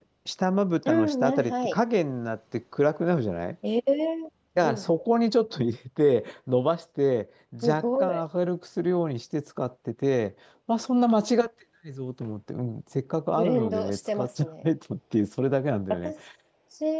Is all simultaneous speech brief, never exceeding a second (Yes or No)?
No